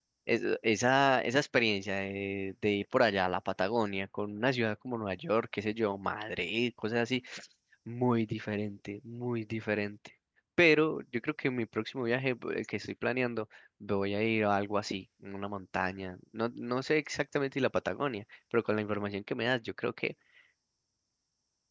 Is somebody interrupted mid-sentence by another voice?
No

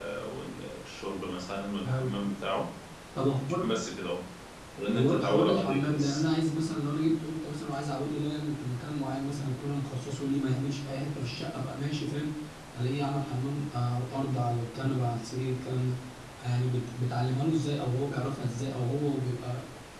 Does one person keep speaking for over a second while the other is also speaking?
Yes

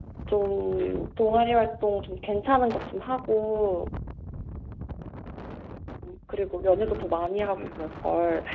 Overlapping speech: Yes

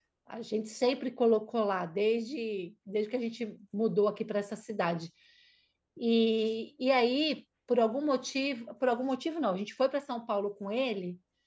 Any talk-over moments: No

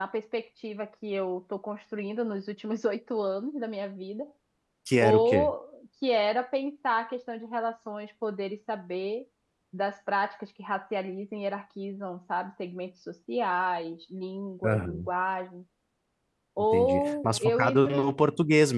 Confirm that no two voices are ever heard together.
No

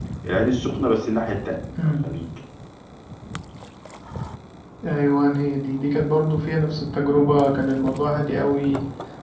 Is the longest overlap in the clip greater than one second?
No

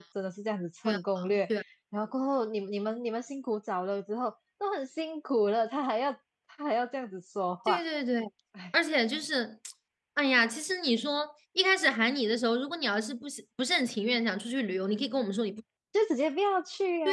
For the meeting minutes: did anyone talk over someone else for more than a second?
No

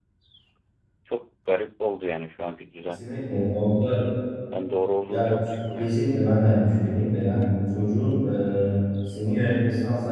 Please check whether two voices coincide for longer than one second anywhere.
No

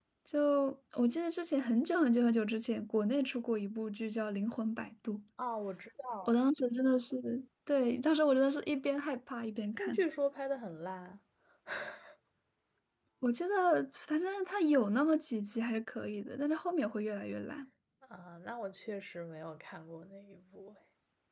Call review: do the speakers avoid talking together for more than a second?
Yes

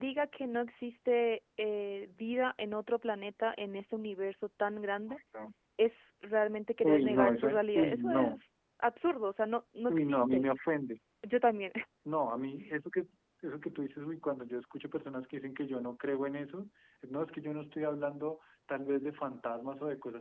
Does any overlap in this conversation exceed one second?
Yes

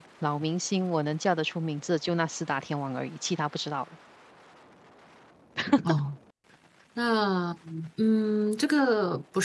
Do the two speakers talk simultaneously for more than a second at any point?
No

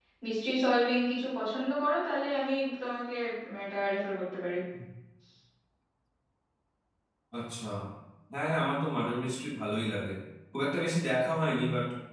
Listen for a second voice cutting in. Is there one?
No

